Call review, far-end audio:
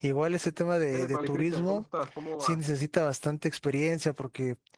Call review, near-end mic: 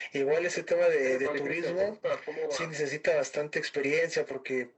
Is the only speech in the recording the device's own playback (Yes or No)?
Yes